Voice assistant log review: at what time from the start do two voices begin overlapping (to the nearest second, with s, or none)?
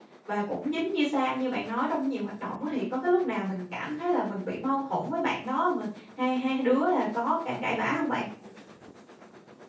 none